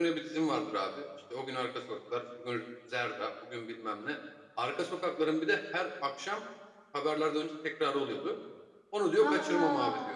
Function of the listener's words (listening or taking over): listening